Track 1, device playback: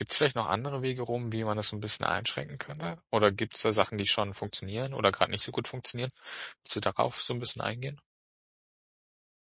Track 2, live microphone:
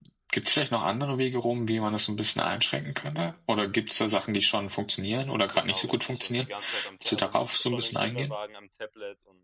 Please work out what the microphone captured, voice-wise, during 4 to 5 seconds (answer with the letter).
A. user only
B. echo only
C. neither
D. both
B